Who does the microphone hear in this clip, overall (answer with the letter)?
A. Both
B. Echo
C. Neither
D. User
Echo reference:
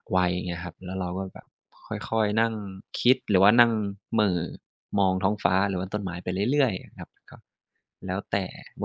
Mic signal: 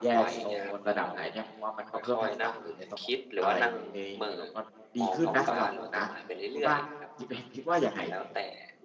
A